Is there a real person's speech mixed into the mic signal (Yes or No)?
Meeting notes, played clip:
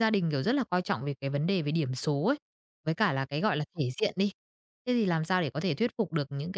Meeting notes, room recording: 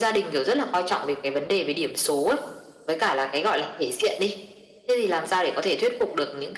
No